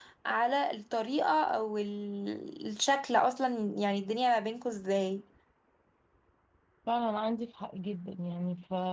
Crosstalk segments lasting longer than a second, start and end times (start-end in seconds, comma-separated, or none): none